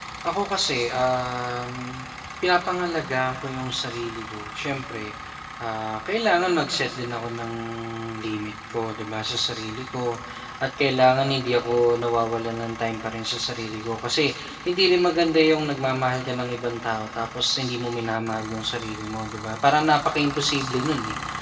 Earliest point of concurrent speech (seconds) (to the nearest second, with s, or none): none